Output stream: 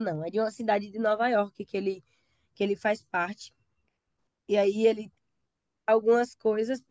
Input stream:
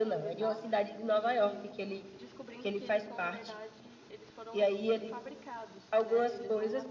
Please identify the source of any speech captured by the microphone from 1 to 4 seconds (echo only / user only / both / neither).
both